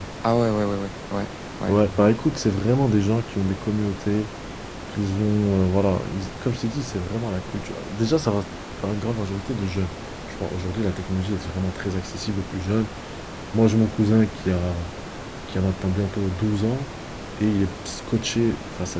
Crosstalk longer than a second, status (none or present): none